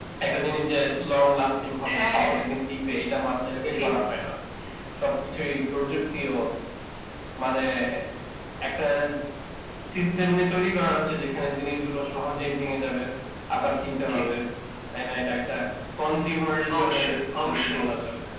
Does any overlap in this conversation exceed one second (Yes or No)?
No